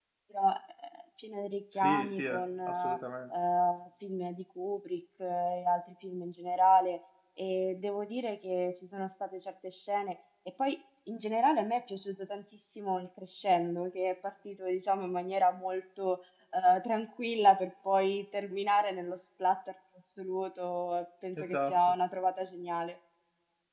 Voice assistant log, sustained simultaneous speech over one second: present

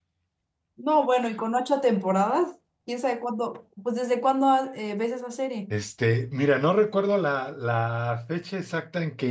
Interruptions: none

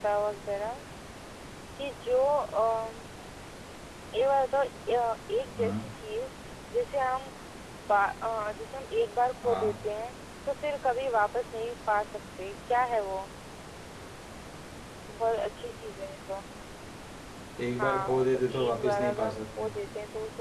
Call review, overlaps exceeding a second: present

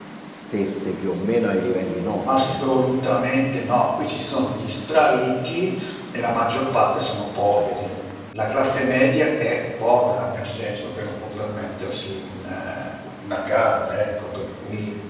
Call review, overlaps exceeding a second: none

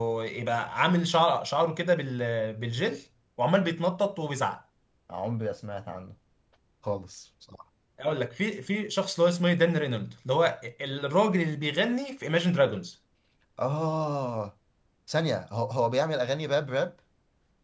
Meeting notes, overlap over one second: none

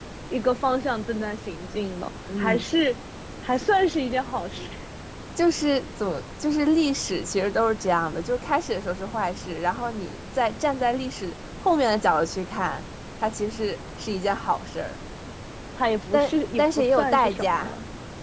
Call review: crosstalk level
present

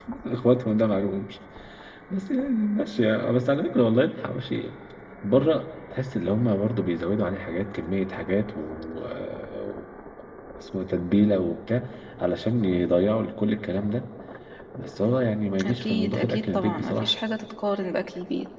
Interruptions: present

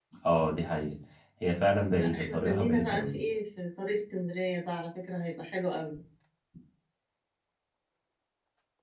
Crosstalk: present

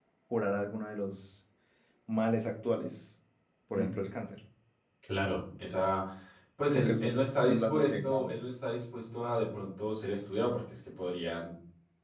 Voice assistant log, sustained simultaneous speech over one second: present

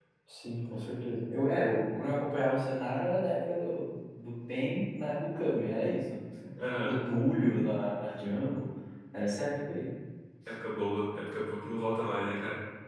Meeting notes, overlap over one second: none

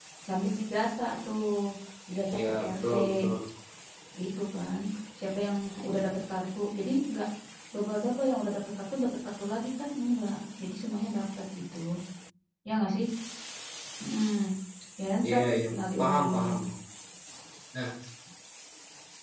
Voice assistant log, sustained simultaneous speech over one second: present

